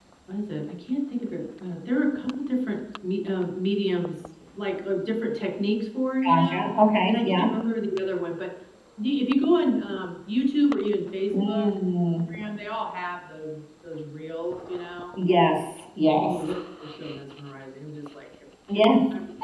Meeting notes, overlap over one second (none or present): none